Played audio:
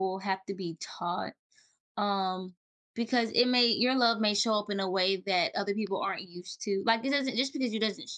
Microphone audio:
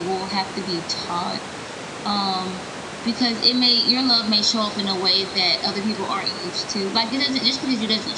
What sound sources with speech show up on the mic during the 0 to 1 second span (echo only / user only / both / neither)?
echo only